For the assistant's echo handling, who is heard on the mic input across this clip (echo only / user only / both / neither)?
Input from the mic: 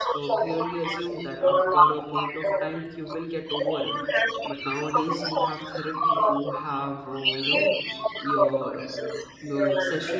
both